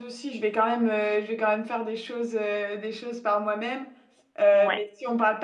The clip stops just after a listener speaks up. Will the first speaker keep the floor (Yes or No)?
Yes